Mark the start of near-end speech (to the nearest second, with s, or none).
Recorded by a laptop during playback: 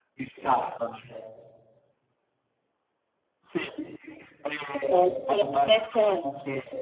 5 s